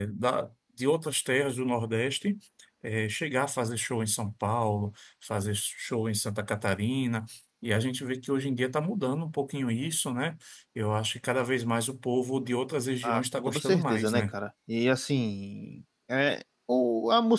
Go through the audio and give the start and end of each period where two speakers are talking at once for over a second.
13.0-14.2

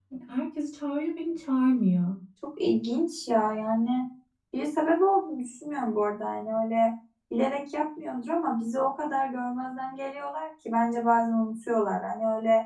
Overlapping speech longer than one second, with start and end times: none

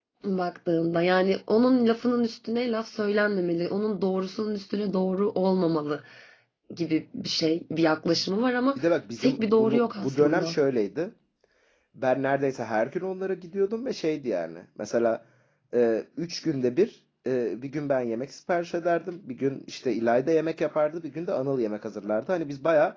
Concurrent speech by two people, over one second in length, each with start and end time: 9.2-10.6

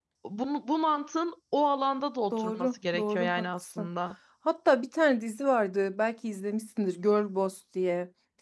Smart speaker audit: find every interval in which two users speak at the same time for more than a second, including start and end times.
2.3-3.9

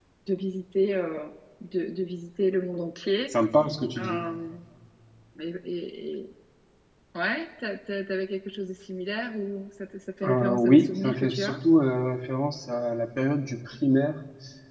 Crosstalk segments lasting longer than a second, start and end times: 10.2-11.6

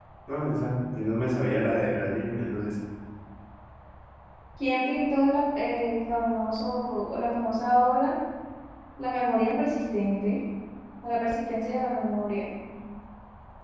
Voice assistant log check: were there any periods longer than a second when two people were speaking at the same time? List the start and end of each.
none

